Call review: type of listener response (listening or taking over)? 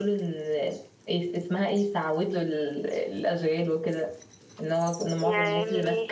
listening